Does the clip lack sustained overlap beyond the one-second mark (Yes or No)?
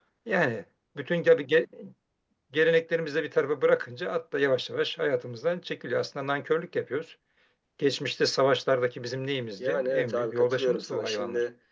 No